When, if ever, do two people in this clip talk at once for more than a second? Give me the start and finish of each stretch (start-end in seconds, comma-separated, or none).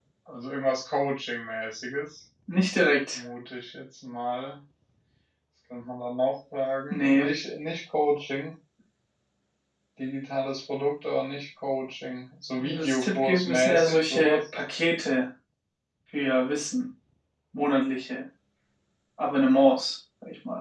12.6-14.4